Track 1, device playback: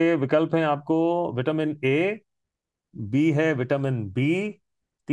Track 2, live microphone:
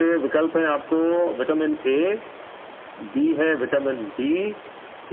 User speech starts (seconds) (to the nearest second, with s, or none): none